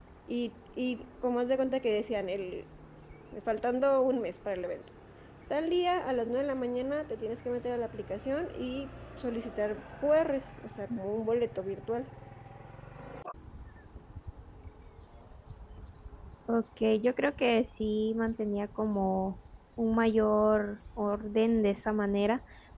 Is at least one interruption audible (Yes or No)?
No